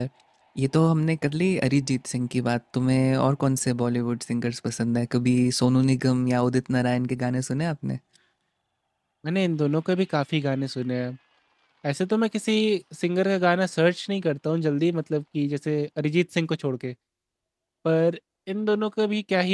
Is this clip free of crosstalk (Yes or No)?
Yes